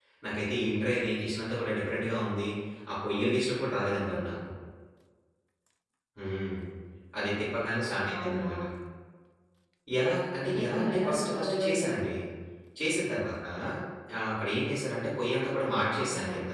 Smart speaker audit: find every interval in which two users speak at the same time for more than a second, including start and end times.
10.6-12.1

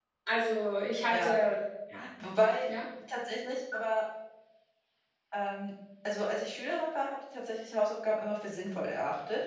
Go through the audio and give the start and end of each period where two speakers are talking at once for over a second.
none

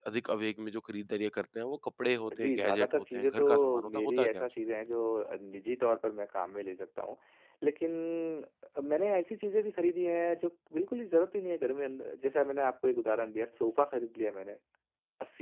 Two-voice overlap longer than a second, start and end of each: 2.4-4.4

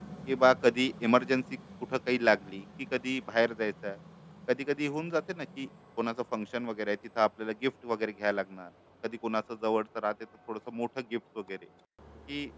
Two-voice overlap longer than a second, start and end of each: none

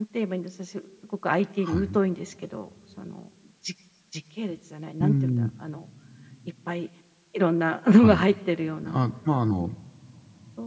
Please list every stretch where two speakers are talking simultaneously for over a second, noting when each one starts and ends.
none

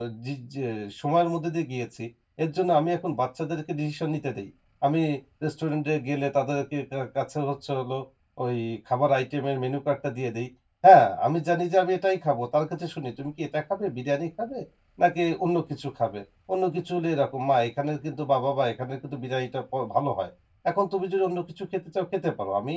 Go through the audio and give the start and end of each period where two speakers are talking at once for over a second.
none

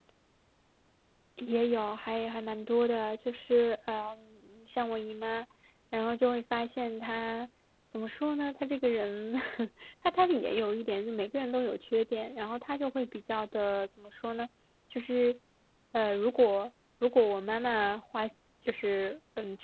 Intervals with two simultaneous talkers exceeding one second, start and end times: none

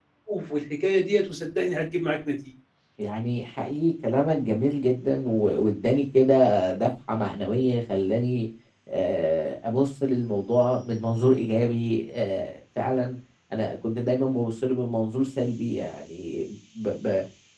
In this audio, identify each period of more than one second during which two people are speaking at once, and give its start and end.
none

